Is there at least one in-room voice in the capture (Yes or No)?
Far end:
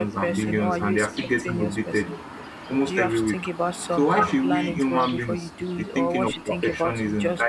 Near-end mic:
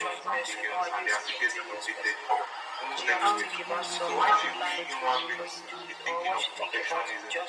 Yes